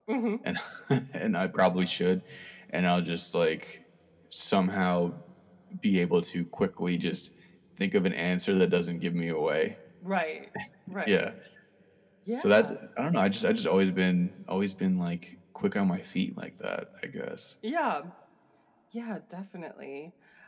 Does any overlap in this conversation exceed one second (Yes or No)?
No